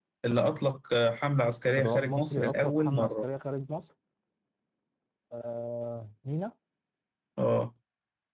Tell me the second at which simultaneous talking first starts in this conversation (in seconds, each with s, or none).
1.8 s